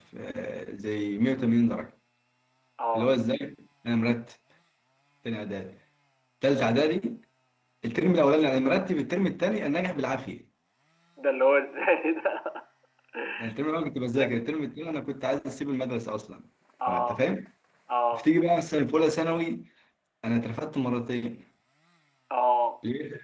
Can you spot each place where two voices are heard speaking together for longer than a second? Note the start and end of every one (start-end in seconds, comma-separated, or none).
none